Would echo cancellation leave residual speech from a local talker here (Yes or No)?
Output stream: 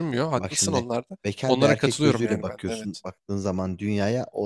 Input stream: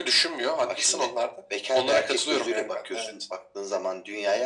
No